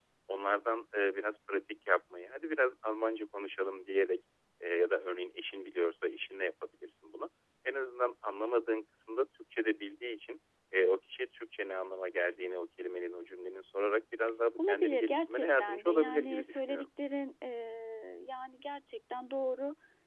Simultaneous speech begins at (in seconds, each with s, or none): 14.6 s